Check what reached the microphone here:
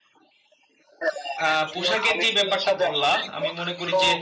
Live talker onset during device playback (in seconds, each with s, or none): 1.4 s